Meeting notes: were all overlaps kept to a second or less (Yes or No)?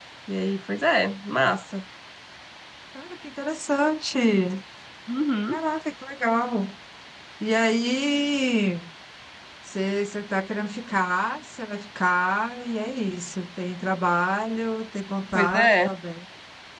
Yes